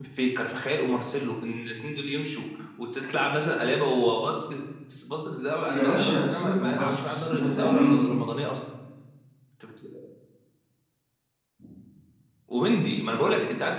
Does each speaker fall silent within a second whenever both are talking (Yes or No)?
No